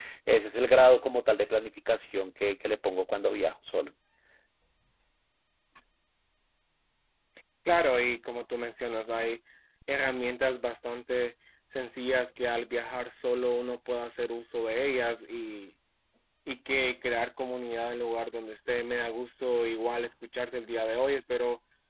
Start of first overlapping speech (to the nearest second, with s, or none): none